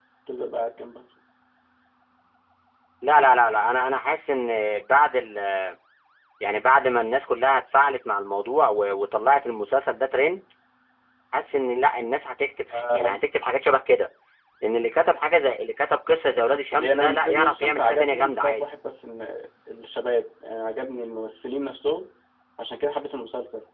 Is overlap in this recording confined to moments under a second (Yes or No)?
No